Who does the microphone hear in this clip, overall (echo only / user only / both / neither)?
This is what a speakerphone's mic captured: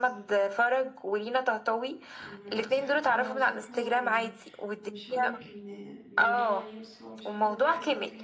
both